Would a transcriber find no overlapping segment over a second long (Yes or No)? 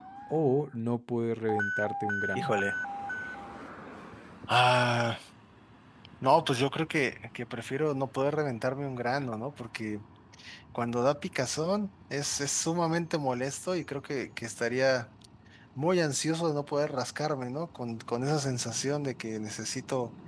Yes